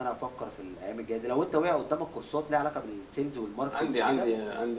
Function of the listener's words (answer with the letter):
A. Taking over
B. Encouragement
A